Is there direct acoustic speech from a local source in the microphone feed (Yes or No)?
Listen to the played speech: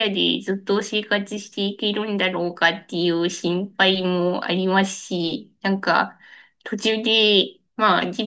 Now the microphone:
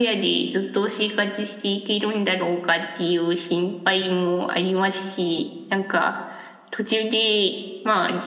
No